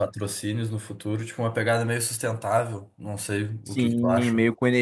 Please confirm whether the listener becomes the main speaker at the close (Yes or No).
Yes